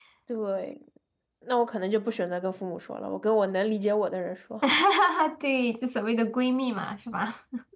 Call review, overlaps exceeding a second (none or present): none